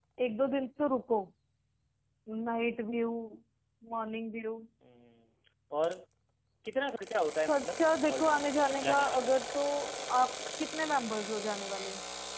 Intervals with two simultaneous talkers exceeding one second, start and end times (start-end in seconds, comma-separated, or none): 7.5-9.3